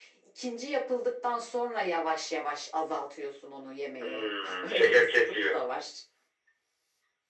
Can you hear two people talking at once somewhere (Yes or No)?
Yes